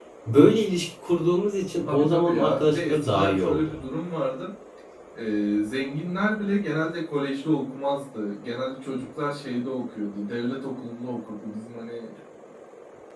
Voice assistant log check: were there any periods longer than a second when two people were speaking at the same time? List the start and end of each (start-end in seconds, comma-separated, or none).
1.8-3.8